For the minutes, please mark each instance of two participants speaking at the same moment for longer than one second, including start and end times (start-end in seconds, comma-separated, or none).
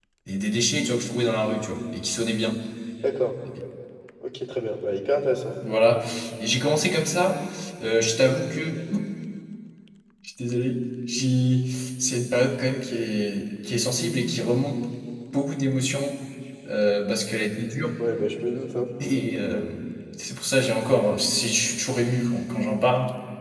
none